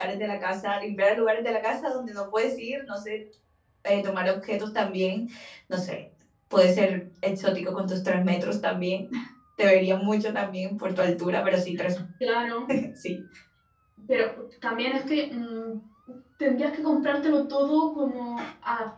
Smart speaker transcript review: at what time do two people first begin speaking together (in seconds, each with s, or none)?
none